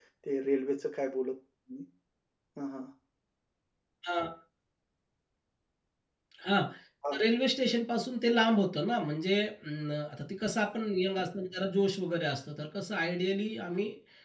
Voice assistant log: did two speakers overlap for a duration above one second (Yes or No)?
No